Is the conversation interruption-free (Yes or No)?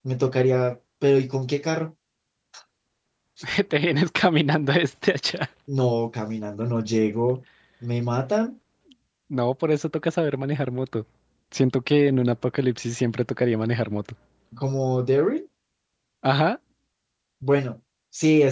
Yes